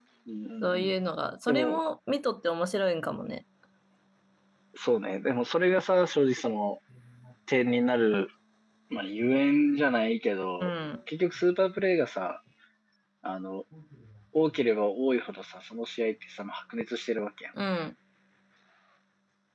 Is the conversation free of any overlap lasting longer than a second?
Yes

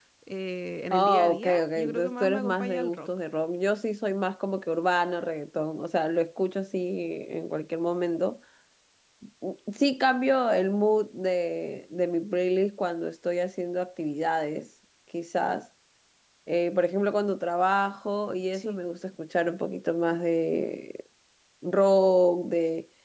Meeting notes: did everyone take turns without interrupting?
No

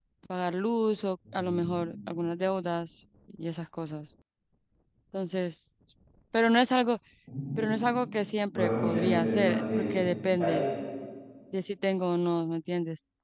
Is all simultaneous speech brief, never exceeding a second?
No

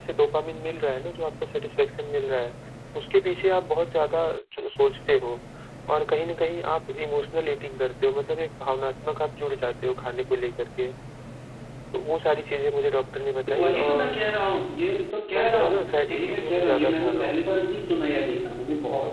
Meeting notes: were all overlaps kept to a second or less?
No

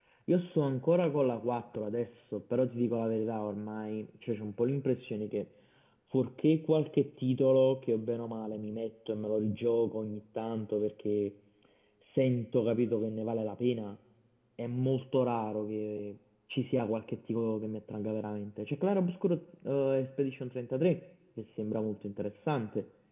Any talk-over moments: No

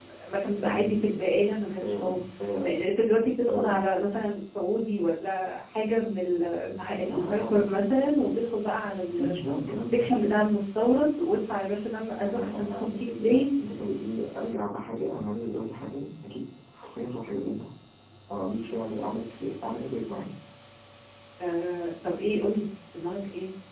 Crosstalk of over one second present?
Yes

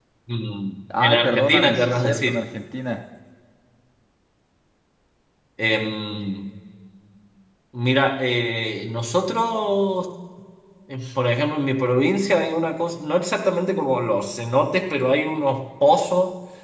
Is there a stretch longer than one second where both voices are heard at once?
Yes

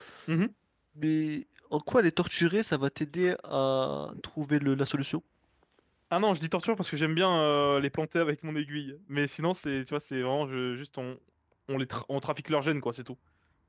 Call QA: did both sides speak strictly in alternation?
Yes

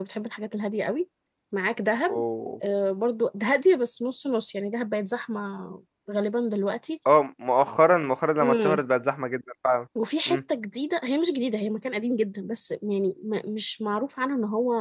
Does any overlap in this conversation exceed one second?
No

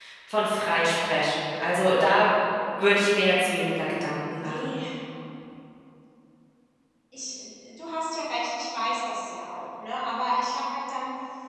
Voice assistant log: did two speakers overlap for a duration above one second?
No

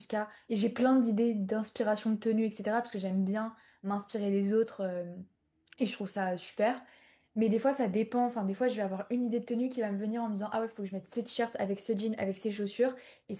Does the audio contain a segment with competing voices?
No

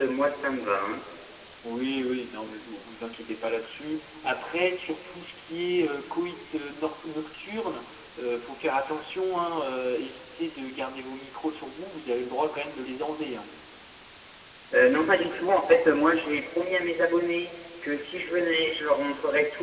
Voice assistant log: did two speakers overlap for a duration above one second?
No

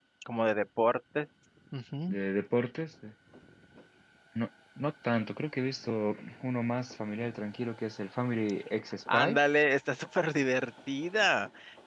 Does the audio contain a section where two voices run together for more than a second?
No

